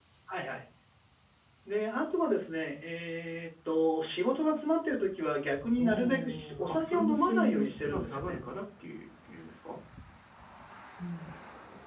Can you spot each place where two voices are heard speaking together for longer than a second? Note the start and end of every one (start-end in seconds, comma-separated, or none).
5.8-8.4